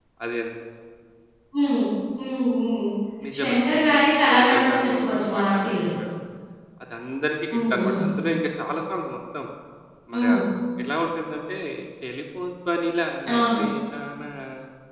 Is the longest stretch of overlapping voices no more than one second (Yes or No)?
No